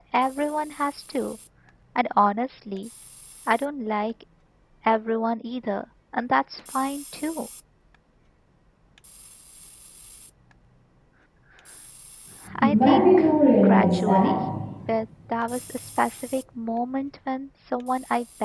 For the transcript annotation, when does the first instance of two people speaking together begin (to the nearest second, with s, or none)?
13 s